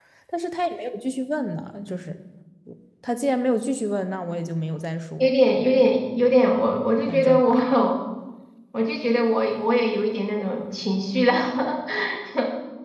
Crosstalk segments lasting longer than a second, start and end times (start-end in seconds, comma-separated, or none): none